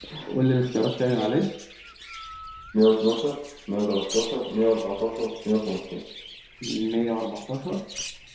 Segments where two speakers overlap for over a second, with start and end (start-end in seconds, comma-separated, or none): none